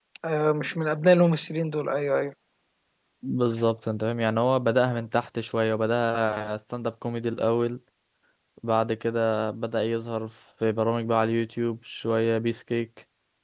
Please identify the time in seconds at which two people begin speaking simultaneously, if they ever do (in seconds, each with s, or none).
none